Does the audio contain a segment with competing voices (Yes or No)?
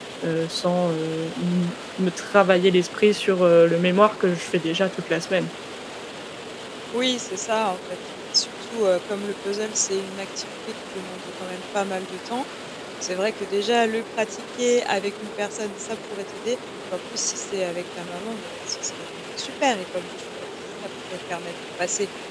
No